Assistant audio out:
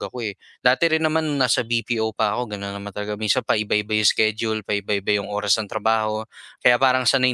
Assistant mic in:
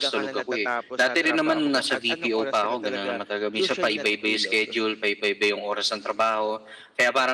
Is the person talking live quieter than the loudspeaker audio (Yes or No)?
Yes